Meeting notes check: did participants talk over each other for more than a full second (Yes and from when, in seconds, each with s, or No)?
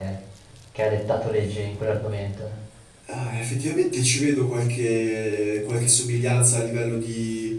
No